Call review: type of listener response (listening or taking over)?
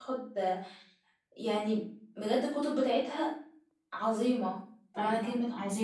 taking over